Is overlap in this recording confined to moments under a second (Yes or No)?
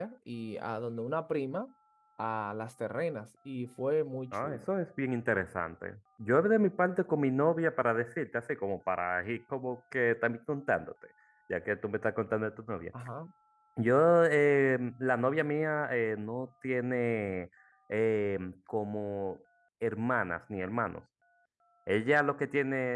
Yes